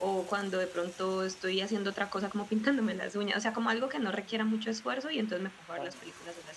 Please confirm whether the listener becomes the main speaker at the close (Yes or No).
No